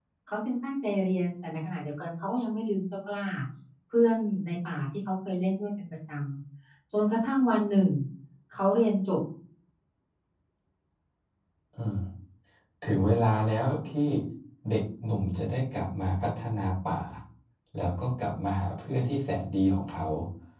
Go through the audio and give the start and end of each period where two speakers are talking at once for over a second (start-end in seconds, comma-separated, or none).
none